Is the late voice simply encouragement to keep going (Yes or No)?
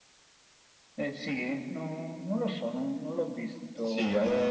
No